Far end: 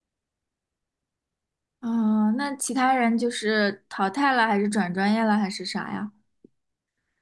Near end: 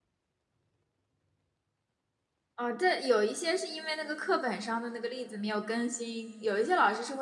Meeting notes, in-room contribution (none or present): present